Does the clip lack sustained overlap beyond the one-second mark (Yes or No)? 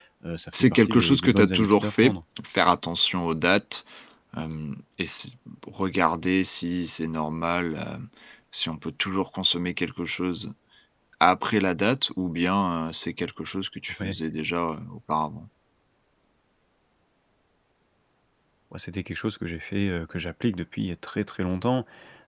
No